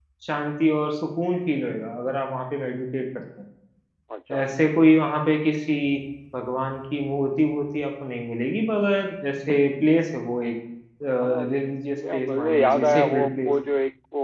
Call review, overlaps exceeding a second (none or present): present